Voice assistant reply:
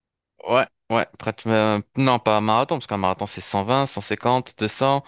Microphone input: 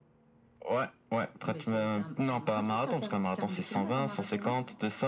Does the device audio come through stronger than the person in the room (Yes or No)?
Yes